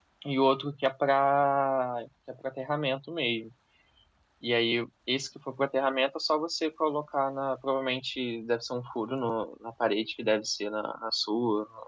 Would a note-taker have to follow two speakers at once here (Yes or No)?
No